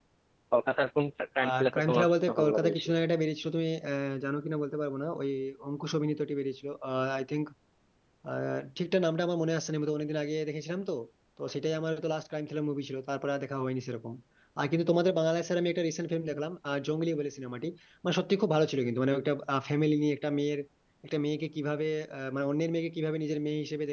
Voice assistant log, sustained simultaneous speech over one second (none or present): present